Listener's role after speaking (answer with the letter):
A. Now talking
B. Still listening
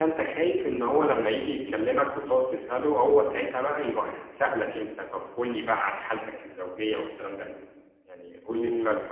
A